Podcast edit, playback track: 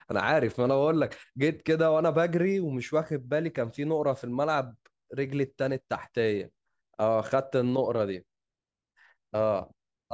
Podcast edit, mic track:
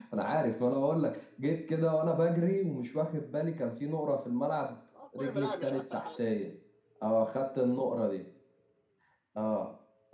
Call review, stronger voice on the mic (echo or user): echo